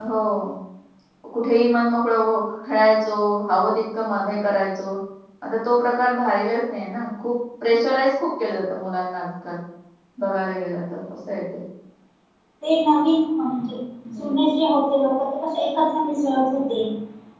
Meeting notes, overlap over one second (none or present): none